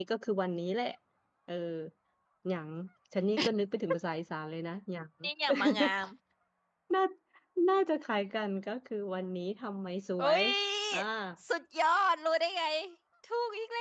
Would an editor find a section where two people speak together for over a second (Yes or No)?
No